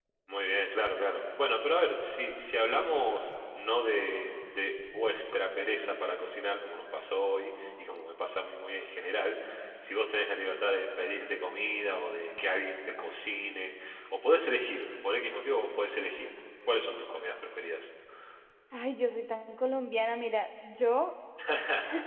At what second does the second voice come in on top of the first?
none

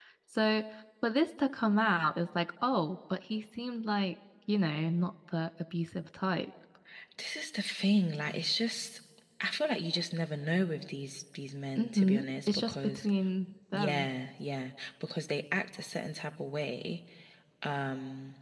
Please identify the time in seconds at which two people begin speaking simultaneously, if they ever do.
11.8 s

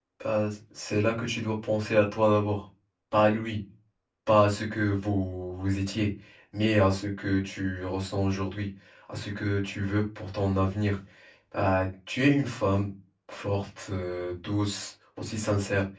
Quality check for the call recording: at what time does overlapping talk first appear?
none

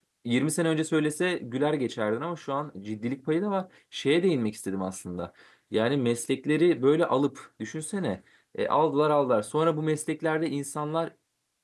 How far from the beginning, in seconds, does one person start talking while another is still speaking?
none

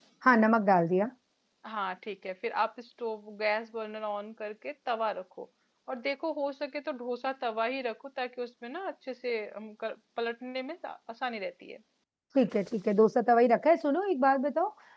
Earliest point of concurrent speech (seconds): none

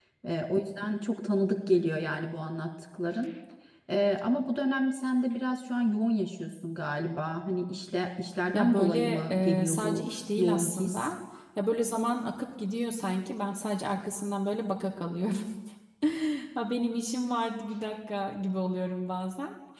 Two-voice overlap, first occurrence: 8.5 s

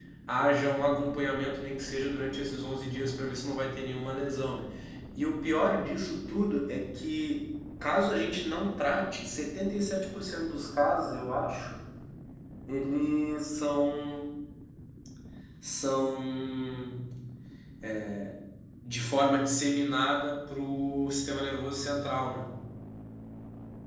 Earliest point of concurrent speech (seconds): none

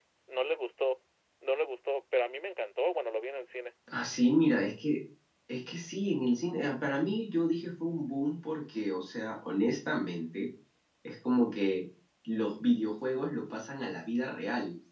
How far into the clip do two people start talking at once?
none

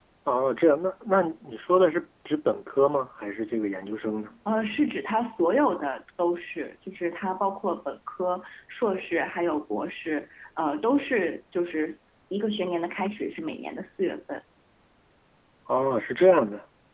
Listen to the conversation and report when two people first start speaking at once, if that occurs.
none

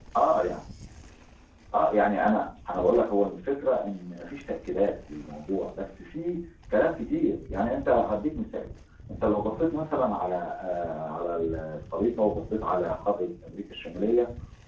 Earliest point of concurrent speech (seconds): none

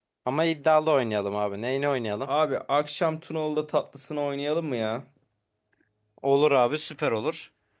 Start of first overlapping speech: none

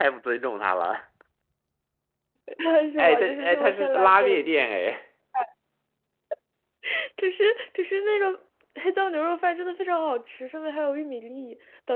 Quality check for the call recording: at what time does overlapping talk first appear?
3.0 s

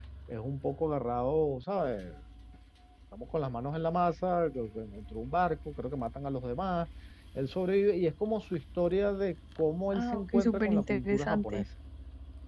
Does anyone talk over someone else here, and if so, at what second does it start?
9.9 s

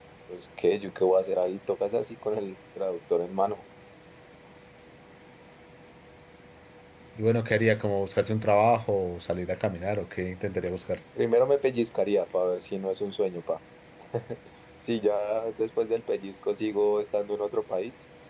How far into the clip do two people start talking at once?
none

